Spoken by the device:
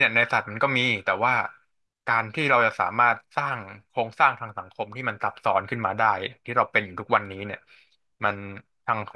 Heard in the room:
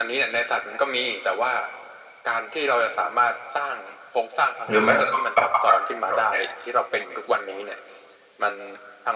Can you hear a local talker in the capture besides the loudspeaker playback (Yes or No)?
Yes